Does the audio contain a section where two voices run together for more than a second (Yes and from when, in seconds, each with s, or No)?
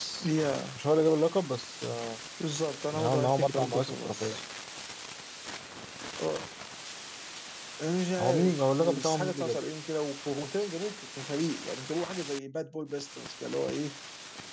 Yes, from 2.9 s